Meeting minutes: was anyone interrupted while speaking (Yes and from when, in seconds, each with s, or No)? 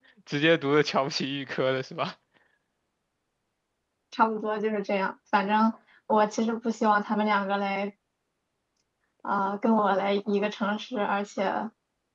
No